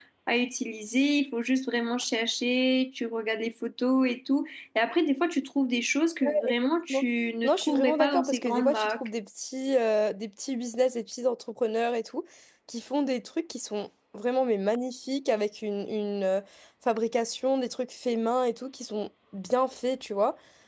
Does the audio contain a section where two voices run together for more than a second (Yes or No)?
Yes